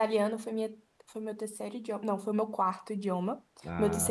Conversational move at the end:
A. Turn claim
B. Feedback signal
B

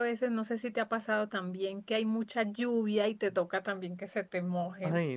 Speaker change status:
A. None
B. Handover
B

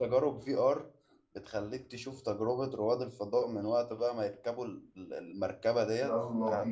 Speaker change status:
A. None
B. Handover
A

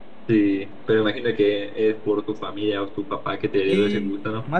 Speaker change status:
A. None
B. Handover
B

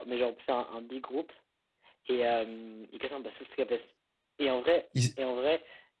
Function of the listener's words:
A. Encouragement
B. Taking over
A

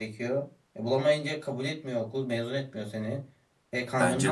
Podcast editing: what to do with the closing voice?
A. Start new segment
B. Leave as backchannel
B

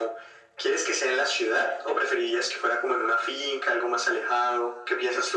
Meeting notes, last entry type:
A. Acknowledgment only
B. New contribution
B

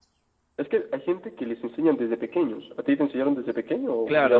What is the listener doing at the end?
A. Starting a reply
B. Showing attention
A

